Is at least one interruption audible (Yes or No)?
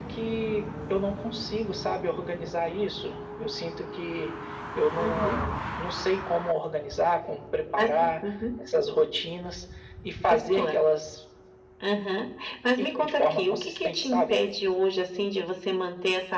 Yes